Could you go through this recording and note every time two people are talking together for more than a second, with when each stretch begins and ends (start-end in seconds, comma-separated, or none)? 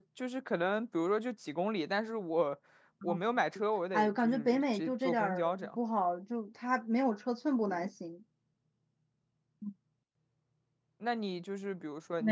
3.9-5.8